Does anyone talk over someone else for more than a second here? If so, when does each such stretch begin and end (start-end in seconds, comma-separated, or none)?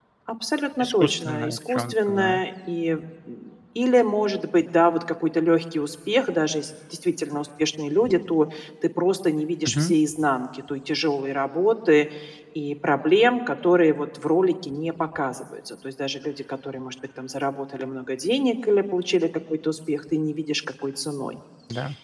0.8-2.4